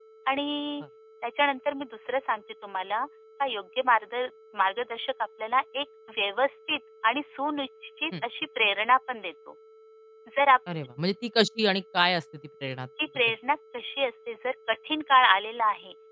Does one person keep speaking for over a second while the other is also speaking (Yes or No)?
No